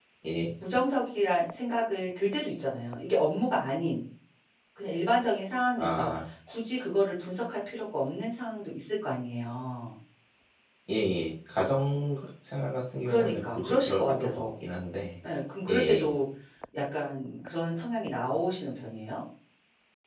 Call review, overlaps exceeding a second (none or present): present